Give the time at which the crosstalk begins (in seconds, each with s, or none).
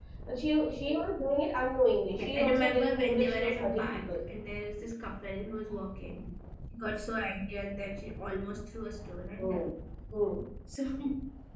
2.1 s